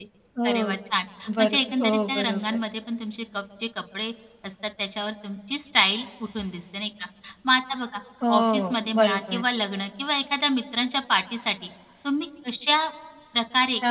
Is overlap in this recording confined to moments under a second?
No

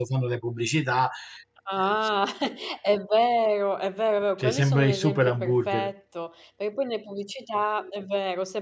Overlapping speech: Yes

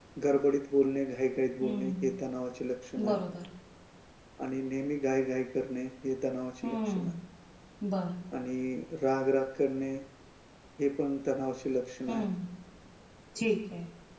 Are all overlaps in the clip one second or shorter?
Yes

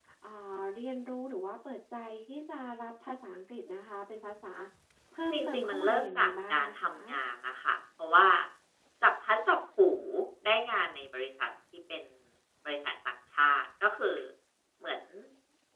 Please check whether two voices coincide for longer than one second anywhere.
Yes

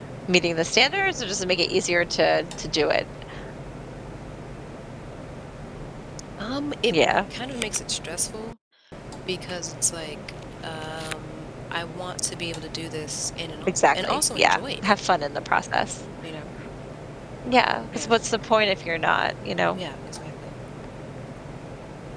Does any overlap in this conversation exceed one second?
Yes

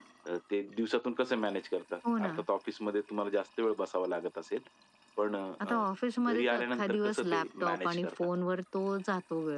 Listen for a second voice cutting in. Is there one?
Yes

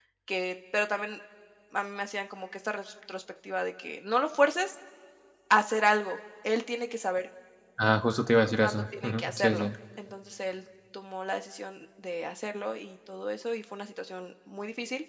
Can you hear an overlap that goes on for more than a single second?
Yes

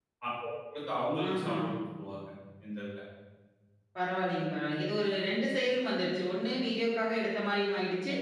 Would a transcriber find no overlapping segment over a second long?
Yes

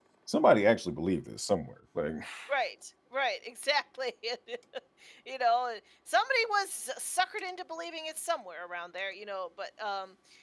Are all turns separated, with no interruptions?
Yes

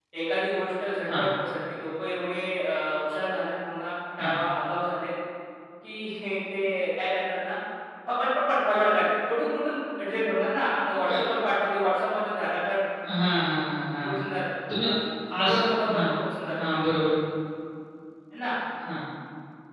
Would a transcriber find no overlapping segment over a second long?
Yes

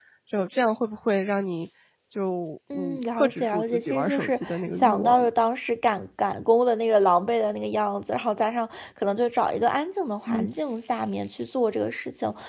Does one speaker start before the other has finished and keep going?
Yes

